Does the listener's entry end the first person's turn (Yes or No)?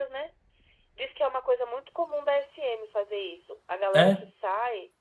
No